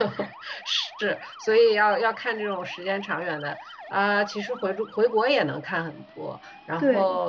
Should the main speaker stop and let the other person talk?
No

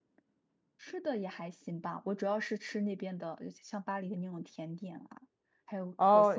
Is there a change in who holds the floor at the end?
Yes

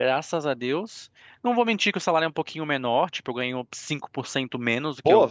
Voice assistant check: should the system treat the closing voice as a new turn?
Yes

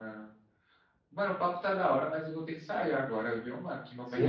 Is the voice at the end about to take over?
Yes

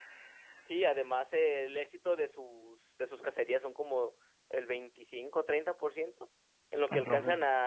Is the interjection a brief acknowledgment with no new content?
Yes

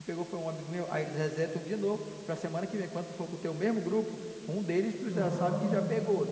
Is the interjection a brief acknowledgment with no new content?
Yes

